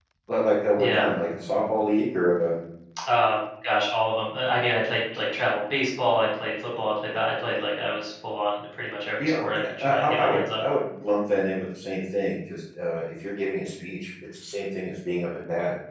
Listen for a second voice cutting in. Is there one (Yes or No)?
Yes